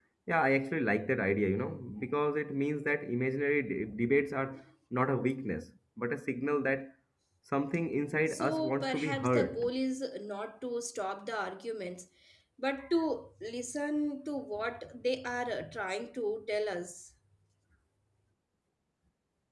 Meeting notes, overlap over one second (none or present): present